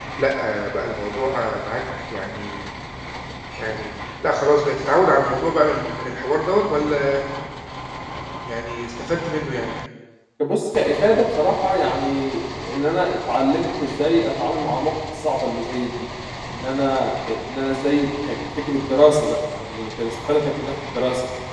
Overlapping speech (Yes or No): No